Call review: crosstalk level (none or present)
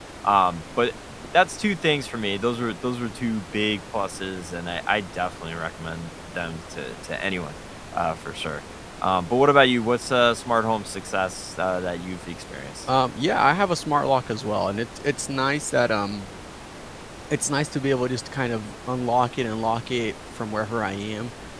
none